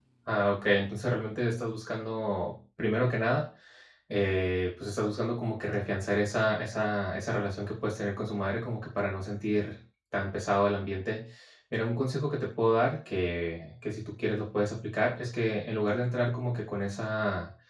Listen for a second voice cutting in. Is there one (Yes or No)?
No